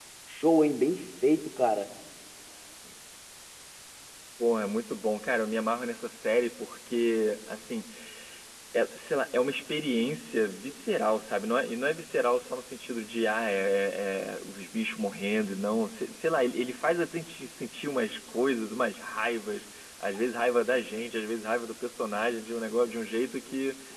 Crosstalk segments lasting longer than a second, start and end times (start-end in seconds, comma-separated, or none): none